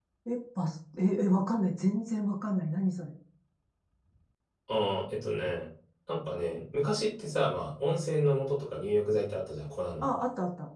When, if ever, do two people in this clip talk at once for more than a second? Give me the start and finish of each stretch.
none

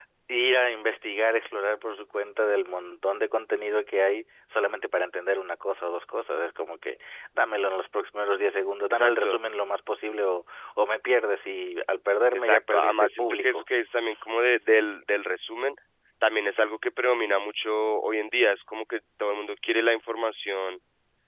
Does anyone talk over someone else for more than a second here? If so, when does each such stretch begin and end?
12.3-13.6

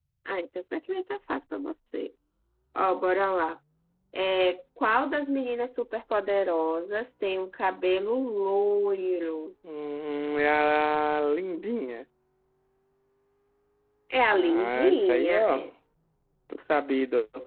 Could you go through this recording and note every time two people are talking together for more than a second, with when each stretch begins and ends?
14.3-15.6

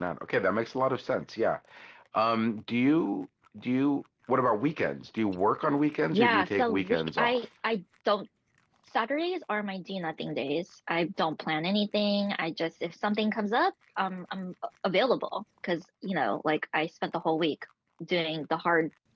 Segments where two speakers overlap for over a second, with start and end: 6.1-7.5

